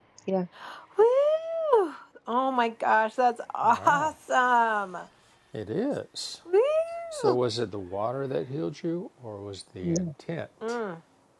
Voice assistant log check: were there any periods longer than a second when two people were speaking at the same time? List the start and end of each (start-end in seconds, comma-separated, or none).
none